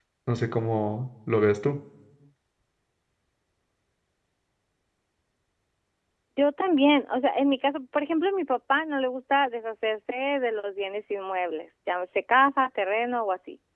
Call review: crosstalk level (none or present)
none